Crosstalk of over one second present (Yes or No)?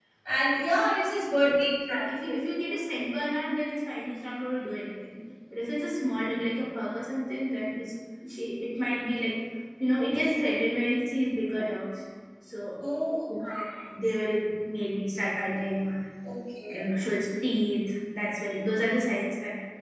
No